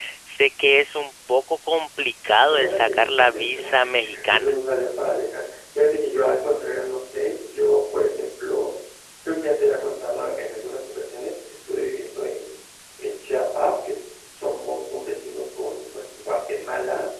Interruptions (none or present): present